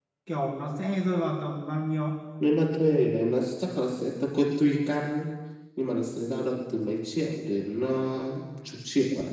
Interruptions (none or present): none